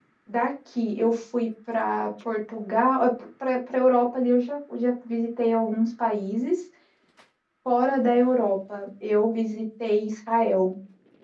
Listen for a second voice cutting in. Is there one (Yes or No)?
No